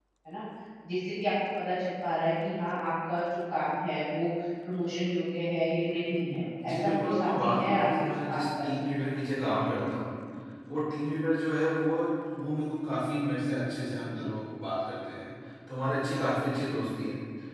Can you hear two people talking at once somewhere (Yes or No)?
Yes